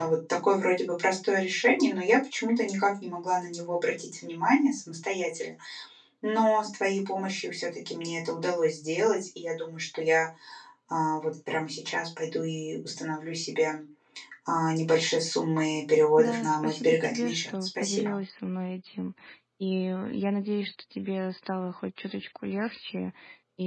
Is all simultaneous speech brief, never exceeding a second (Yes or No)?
No